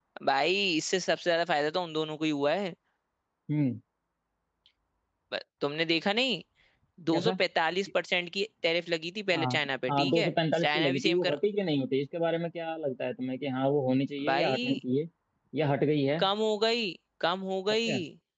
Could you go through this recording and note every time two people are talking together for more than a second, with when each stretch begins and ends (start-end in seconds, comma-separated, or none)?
9.9-11.4